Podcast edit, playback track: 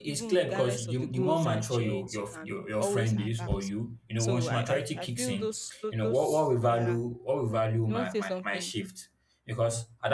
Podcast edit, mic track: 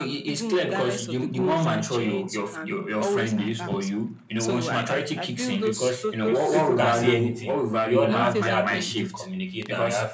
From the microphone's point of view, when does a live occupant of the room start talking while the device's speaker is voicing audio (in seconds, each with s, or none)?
5.6 s